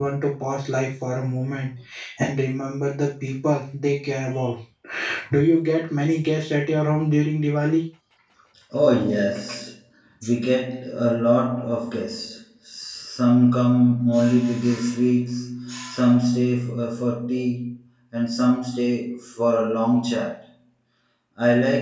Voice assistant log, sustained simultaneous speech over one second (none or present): none